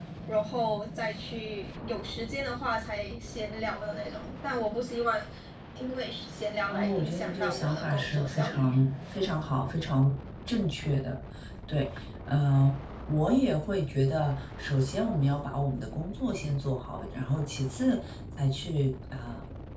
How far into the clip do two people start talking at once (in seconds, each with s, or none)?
6.7 s